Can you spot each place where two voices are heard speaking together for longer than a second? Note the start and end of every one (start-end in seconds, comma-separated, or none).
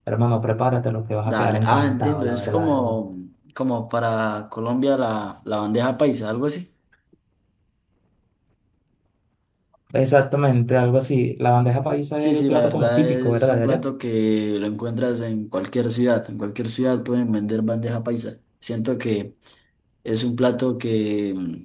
1.3-3.0, 12.2-13.8